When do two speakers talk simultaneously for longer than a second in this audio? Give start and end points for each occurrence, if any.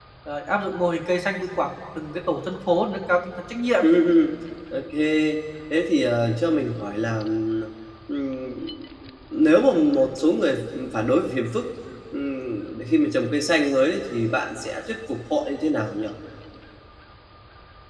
none

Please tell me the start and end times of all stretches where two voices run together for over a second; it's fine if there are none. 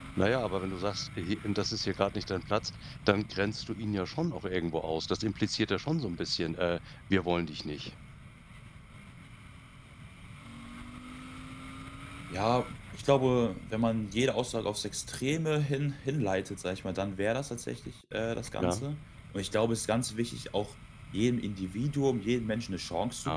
none

